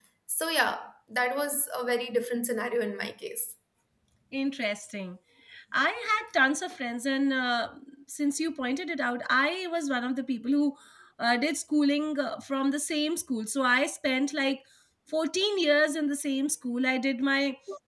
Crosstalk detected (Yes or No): No